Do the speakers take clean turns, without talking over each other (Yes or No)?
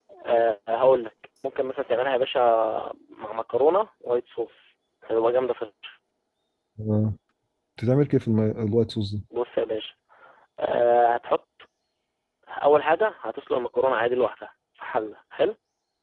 Yes